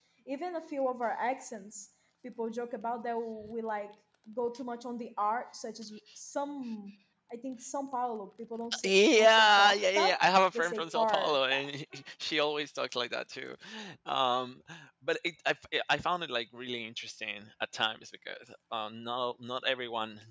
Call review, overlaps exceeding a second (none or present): present